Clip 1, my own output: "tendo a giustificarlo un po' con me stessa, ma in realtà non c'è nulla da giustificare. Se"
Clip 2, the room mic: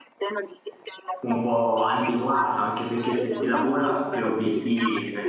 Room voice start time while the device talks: 1.2 s

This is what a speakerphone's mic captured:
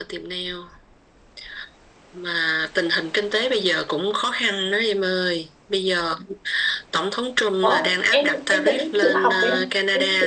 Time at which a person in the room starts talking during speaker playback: 7.6 s

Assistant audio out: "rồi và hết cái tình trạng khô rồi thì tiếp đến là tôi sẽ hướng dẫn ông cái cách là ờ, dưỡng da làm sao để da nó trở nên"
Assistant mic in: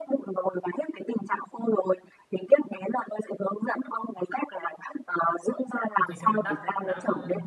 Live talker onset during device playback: 6.0 s

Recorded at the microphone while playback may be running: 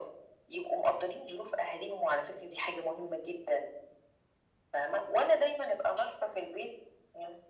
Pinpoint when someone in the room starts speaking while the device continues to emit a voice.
none

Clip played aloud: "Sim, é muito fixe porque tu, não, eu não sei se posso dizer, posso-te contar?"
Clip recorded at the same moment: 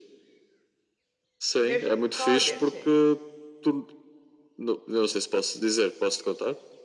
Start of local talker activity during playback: 1.5 s

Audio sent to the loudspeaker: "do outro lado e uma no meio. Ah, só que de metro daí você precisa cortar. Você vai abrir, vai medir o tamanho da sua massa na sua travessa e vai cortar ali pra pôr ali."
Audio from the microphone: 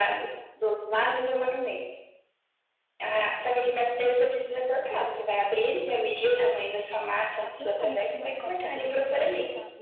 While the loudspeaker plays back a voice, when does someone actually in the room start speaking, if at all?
7.4 s

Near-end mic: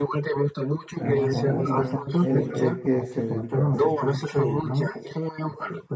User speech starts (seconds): 1.0 s

